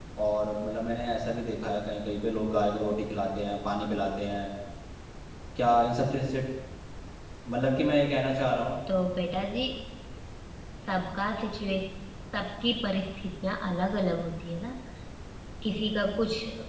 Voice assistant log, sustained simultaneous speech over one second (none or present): none